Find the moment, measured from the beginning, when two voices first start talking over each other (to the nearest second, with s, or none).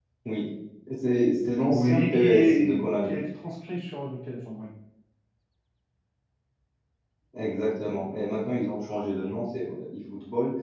2 s